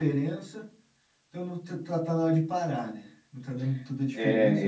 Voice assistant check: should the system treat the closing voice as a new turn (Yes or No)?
Yes